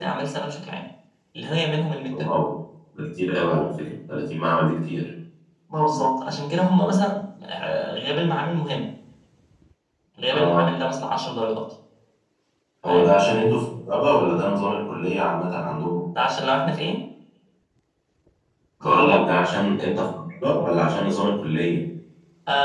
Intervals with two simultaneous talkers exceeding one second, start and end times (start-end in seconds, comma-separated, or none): none